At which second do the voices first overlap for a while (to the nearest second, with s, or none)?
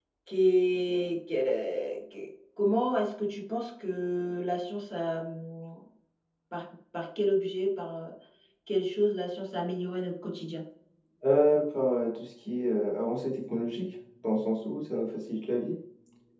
none